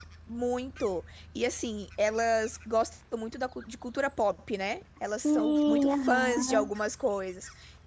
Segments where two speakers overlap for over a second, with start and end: 5.2-6.7

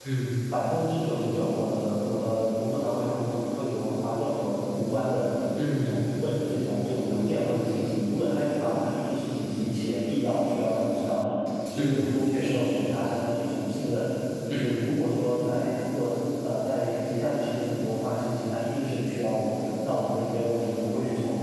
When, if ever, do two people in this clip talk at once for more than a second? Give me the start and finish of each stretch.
11.8-13.0

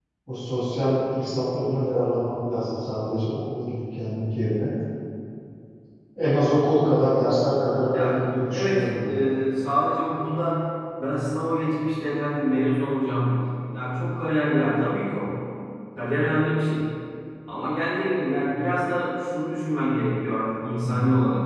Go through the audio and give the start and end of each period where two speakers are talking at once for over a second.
7.9-9.2

